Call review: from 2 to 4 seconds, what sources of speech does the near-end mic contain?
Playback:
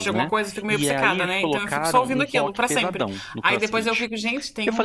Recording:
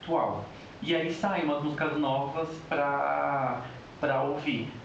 user only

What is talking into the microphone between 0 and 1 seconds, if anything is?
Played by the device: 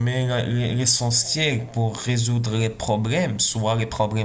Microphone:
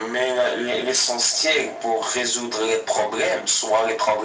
echo only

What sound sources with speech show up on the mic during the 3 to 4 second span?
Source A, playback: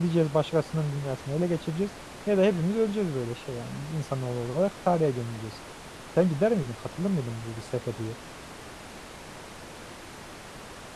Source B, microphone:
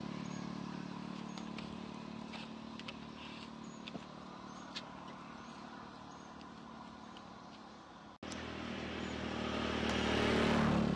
neither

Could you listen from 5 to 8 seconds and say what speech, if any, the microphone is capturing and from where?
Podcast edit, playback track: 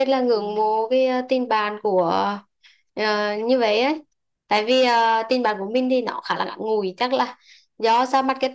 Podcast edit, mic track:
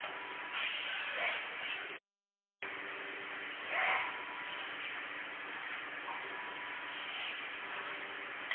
neither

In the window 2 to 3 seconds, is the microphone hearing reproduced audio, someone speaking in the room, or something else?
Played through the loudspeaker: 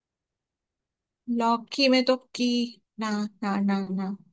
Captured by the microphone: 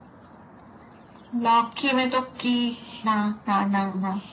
echo only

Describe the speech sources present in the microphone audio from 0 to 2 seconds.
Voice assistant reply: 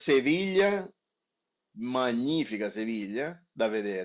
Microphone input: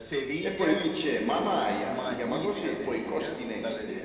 both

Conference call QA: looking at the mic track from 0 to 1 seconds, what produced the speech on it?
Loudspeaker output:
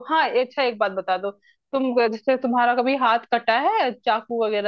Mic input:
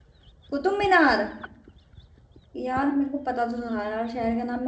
user only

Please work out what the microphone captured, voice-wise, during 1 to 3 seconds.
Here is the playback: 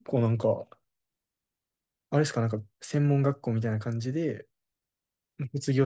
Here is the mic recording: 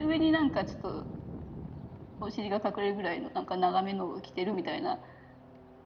user only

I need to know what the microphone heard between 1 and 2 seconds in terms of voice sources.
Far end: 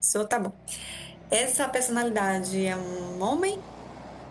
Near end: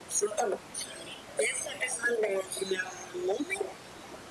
echo only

